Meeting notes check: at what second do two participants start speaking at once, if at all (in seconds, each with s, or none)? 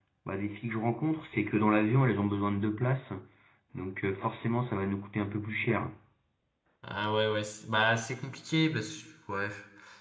none